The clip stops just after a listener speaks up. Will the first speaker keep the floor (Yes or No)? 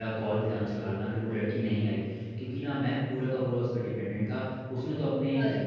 Yes